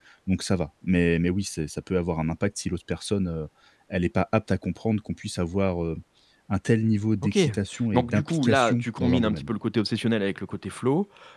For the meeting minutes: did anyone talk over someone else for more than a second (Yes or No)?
Yes